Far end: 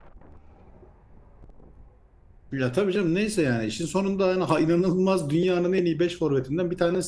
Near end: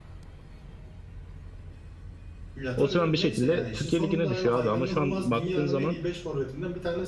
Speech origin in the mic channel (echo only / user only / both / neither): both